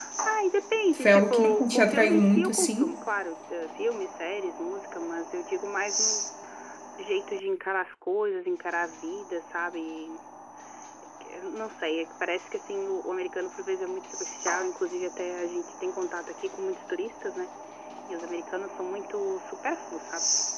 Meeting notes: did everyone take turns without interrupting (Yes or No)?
No